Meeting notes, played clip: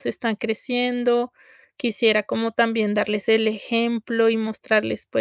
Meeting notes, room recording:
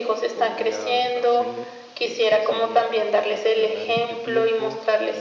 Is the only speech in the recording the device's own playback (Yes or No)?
No